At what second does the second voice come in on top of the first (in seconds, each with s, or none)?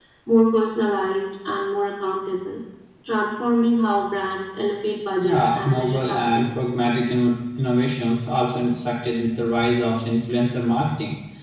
5.2 s